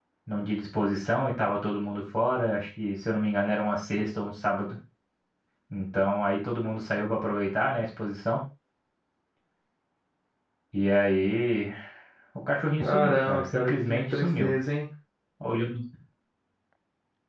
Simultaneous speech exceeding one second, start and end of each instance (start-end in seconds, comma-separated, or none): 12.8-14.6